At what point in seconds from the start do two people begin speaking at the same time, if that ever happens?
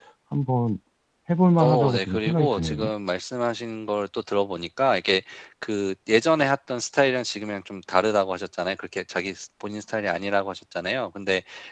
2 s

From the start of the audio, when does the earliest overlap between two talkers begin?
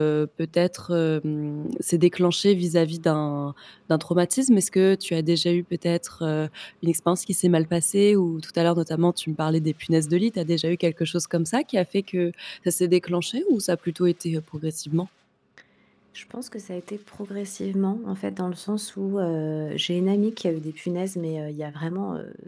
none

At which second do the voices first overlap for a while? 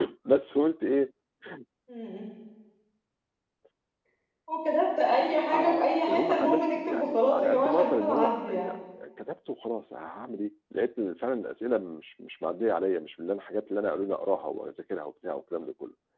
6 s

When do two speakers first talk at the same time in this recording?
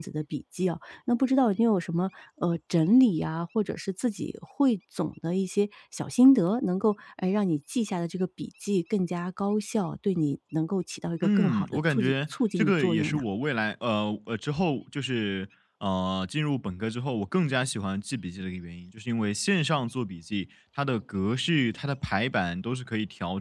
11 s

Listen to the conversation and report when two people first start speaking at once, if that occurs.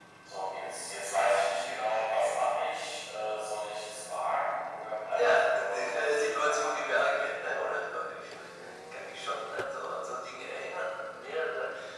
5 s

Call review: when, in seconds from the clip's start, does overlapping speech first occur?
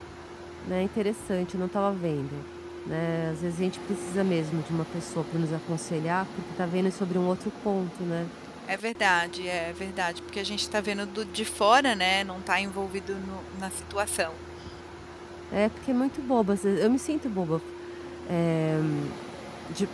none

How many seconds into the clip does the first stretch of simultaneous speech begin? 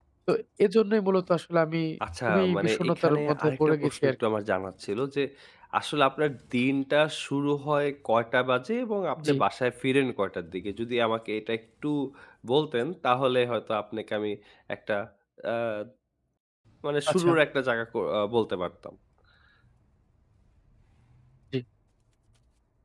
2 s

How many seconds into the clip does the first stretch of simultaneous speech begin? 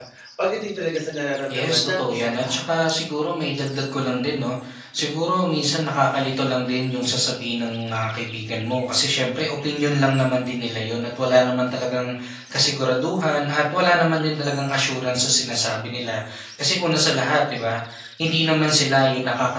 2 s

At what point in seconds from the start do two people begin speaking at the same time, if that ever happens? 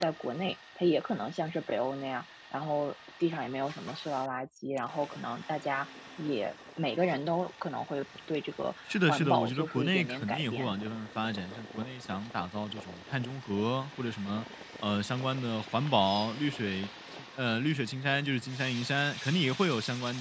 9 s

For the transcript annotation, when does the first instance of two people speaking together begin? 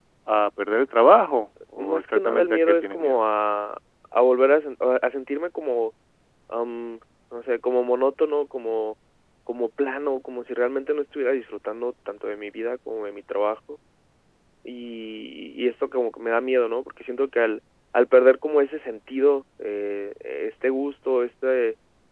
2 s

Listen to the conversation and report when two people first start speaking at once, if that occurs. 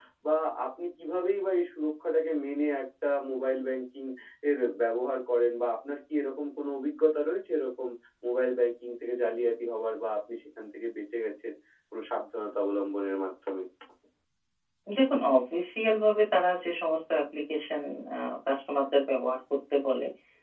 none

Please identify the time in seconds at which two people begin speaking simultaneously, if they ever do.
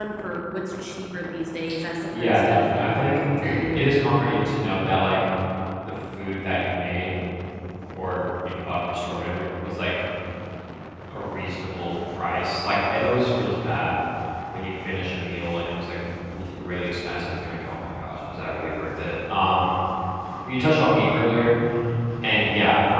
2 s

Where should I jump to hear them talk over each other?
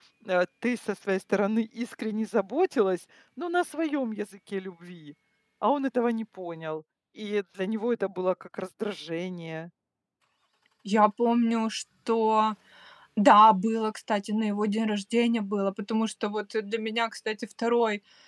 none

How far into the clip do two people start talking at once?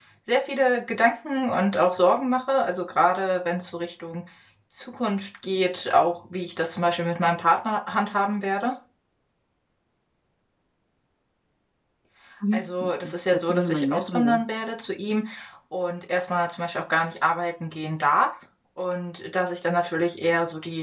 13 s

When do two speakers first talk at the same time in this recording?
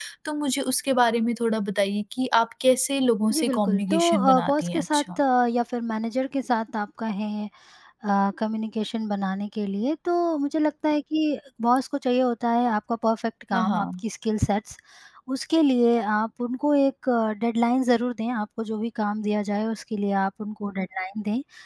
3 s

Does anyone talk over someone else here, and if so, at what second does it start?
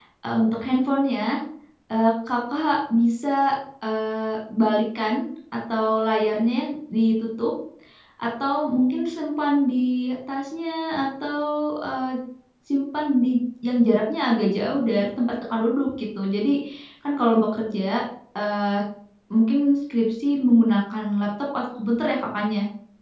none

